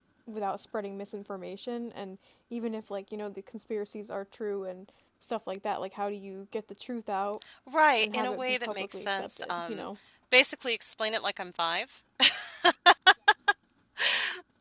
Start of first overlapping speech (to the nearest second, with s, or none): 8 s